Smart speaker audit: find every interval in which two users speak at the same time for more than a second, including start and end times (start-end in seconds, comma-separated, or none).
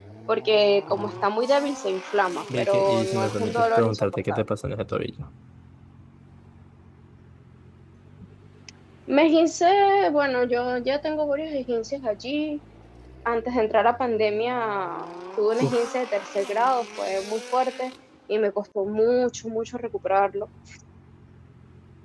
2.6-4.4